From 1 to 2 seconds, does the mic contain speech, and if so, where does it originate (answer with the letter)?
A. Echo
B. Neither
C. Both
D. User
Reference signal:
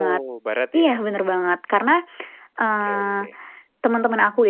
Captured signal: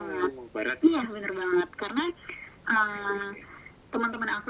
A